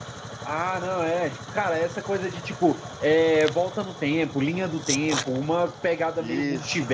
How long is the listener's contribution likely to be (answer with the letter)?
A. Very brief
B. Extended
A